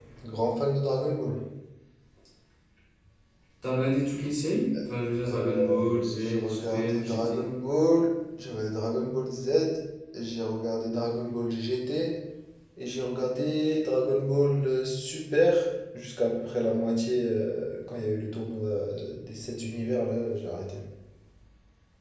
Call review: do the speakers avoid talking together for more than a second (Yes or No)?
No